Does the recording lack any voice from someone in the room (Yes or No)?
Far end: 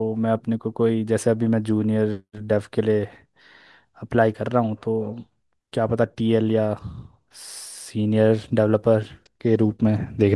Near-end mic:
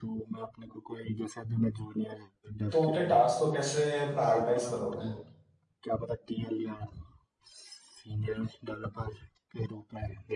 No